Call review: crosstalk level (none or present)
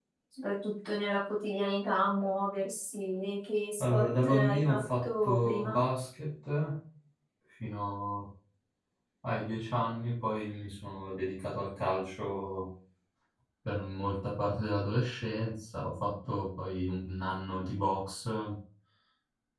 present